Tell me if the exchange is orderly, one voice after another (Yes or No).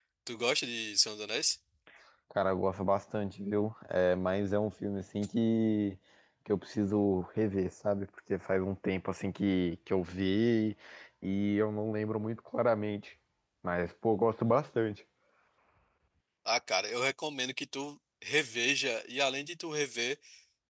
Yes